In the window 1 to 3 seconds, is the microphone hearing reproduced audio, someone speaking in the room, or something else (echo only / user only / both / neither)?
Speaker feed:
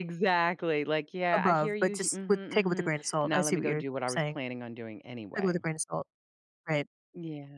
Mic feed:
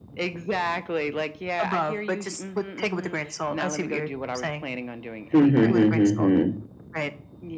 echo only